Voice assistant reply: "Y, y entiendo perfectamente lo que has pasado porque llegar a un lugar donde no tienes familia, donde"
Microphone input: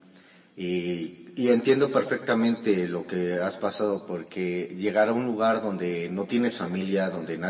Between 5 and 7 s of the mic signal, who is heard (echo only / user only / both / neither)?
echo only